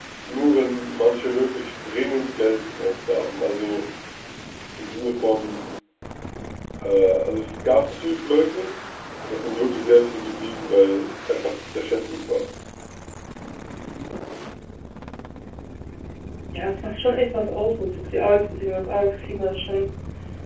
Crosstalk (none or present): none